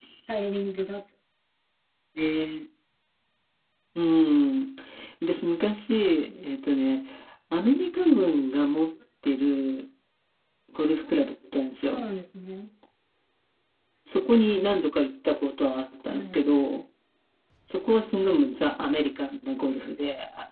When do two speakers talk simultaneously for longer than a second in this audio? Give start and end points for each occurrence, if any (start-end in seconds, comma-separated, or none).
none